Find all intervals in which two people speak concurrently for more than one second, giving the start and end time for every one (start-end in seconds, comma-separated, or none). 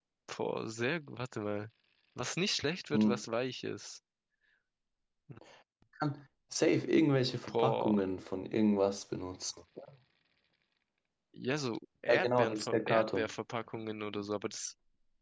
12.1-13.3